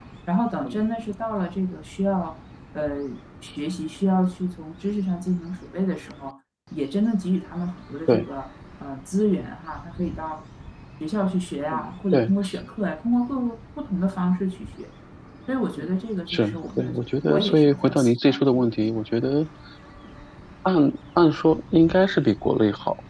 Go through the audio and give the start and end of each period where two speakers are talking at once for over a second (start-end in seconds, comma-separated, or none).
16.3-19.0